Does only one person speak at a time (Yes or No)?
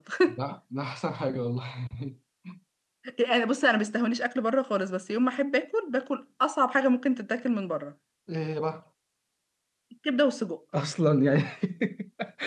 Yes